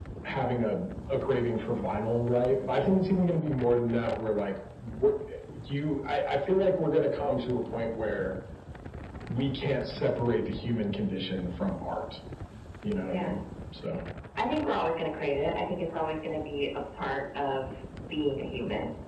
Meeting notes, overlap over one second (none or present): none